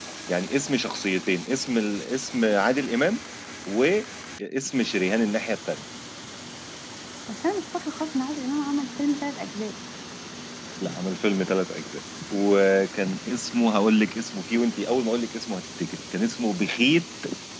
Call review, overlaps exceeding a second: none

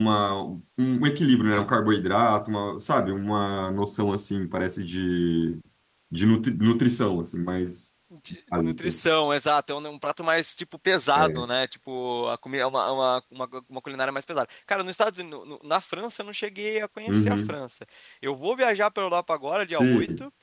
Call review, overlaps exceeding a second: none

